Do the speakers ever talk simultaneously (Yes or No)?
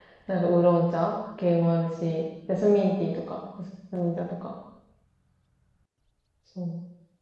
No